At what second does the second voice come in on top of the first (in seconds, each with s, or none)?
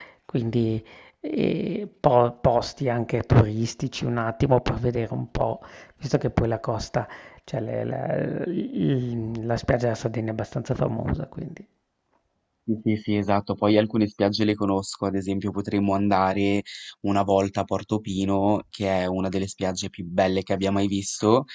none